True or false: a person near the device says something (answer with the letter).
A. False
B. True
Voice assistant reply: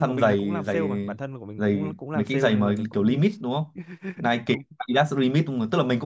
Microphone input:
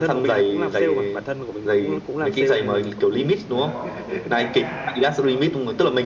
B